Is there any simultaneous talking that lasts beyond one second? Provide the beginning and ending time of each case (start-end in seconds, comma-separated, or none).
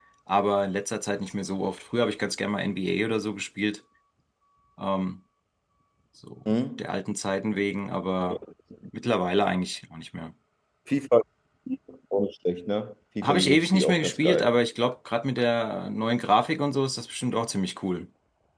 13.2-14.5